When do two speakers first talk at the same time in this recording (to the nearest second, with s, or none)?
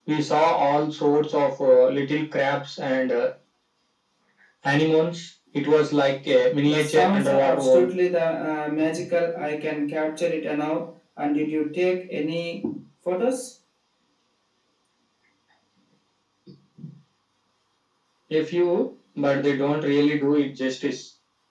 7 s